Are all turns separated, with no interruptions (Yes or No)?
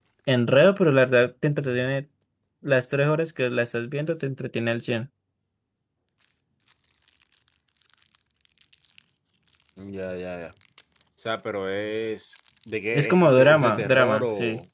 No